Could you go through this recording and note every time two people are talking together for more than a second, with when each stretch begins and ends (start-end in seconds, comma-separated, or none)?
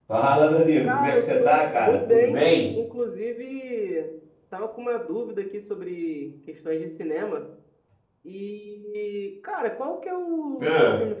0.8-2.7